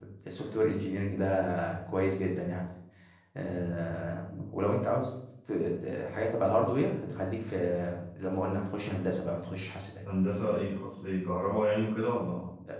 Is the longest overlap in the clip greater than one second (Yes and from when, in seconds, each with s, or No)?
No